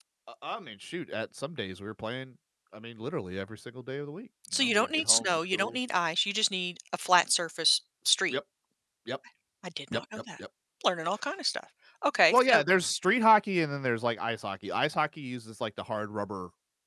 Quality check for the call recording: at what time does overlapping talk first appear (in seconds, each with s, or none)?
4.5 s